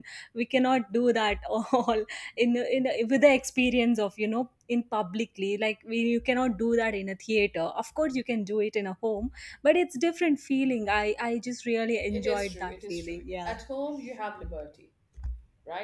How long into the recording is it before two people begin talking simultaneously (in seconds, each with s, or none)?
12.1 s